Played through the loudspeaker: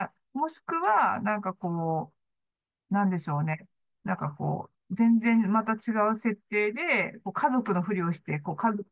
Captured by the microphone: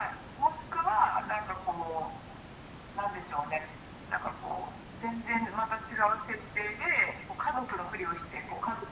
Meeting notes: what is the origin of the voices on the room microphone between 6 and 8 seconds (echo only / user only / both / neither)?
echo only